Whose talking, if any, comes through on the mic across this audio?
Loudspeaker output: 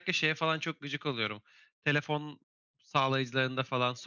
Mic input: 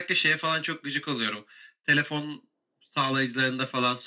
echo only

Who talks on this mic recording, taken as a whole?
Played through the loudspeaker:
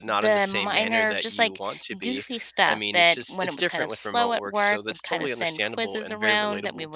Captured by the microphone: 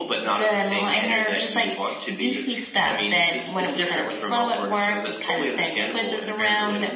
echo only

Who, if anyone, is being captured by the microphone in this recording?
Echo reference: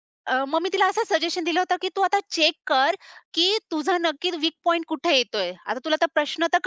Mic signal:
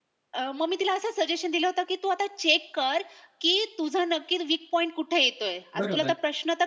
both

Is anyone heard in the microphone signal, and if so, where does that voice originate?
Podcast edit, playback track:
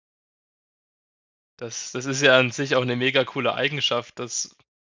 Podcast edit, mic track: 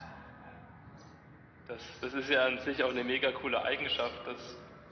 echo only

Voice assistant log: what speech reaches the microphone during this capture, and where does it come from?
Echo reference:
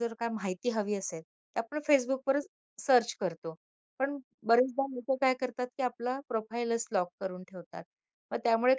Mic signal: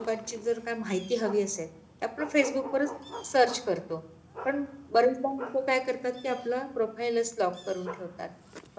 echo only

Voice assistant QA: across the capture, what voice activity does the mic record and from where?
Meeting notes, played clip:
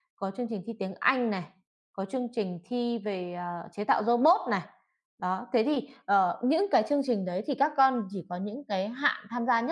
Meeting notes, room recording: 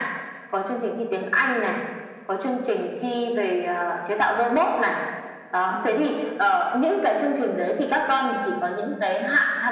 both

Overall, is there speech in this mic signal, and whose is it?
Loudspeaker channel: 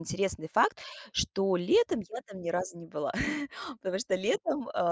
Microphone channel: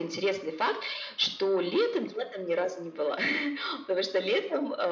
echo only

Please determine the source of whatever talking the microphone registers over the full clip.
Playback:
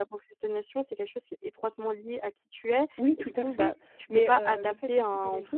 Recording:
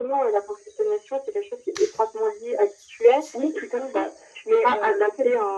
echo only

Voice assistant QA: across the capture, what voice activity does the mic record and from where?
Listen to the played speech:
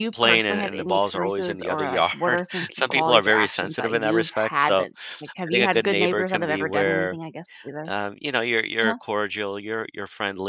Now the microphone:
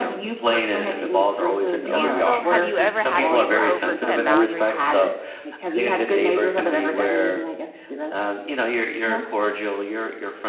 both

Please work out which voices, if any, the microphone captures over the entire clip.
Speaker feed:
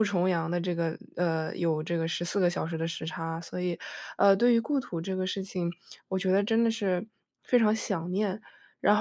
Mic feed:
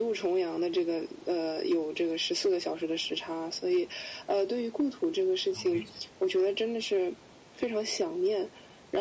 both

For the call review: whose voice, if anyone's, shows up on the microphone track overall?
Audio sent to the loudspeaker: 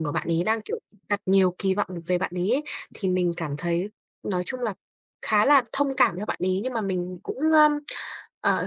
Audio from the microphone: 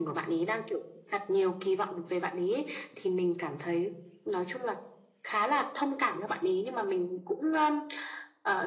echo only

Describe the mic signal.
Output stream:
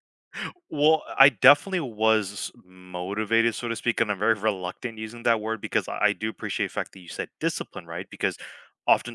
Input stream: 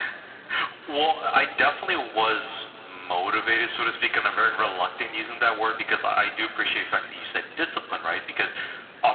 echo only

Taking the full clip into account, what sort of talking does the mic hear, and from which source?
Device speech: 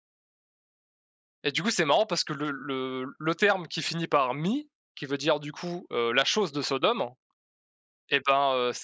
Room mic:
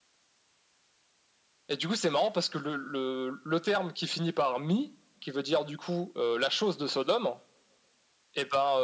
echo only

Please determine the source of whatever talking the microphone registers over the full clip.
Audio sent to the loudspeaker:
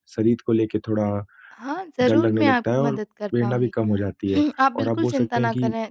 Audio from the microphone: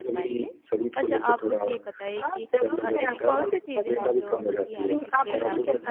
both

